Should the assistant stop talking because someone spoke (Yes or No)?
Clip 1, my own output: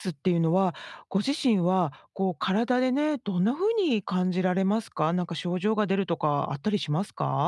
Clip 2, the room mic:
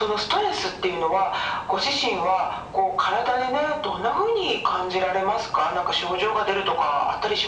No